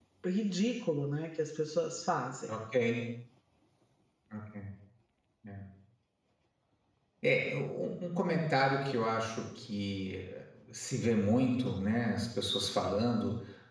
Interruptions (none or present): none